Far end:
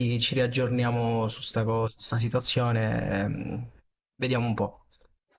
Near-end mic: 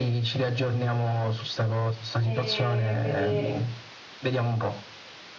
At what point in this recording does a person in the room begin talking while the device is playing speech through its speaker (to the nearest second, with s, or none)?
2 s